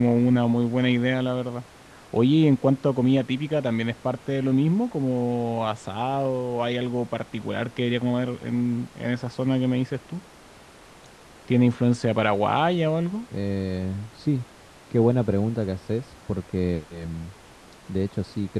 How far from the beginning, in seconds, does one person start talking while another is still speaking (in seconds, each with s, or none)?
none